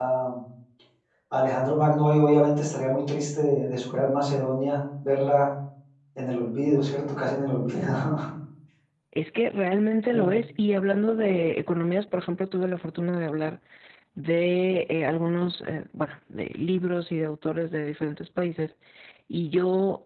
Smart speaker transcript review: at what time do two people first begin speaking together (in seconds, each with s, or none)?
none